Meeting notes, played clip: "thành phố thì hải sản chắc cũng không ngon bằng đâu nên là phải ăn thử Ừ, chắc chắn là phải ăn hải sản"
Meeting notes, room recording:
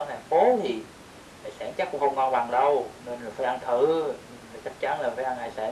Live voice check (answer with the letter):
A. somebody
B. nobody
B